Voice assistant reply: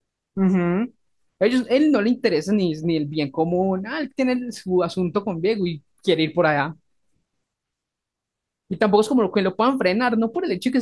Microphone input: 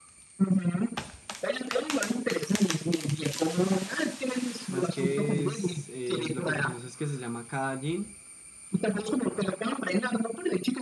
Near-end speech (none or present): present